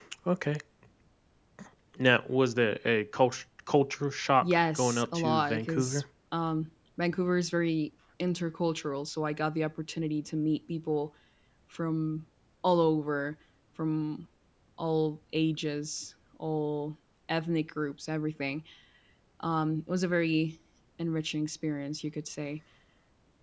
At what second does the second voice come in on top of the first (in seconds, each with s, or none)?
4.4 s